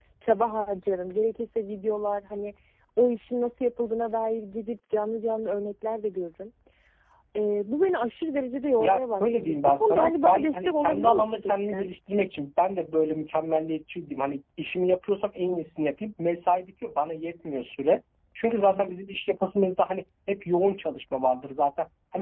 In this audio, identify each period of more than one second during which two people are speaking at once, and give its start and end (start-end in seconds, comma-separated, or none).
8.8-11.9